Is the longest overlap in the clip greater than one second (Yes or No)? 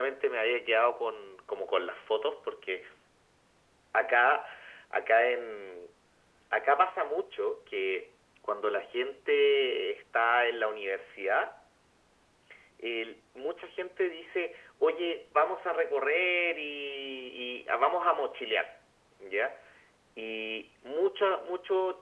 No